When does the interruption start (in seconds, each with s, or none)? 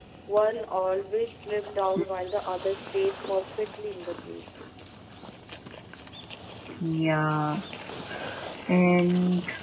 none